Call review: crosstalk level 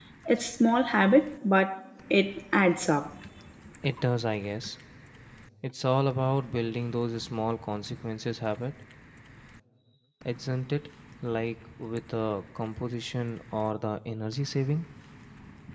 none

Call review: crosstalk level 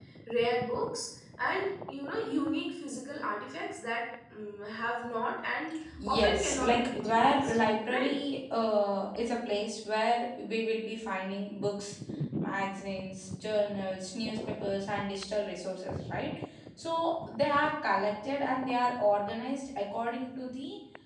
present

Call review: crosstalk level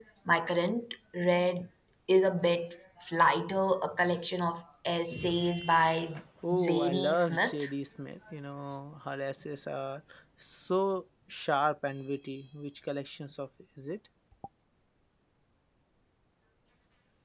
present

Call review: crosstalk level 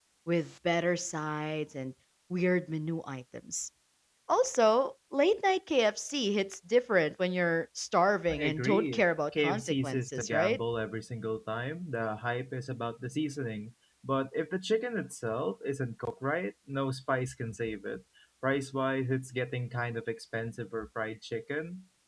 present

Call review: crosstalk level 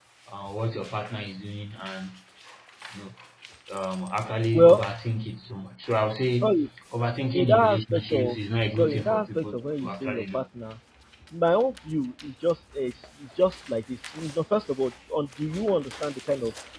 present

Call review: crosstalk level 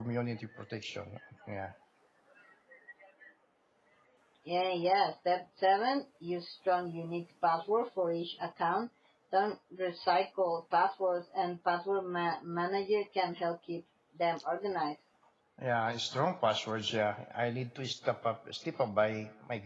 none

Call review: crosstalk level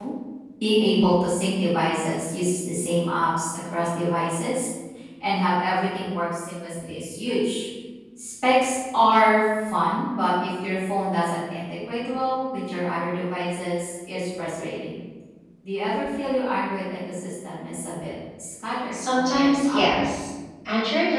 present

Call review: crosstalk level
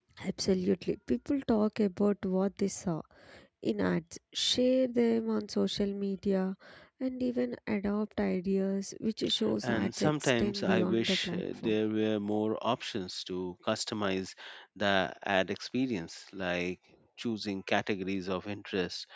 present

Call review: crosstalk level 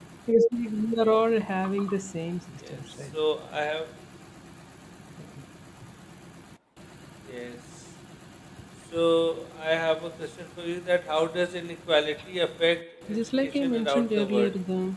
present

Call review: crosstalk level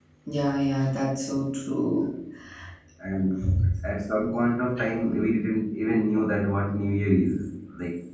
none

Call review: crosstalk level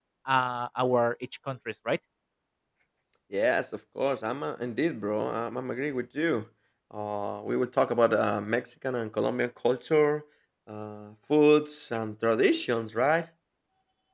none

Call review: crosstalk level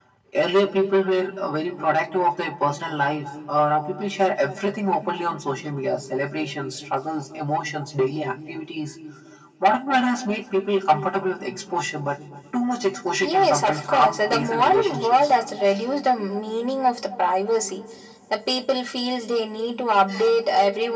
present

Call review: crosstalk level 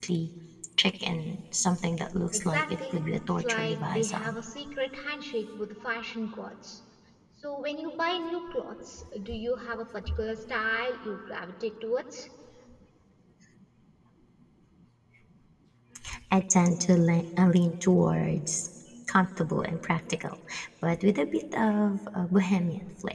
present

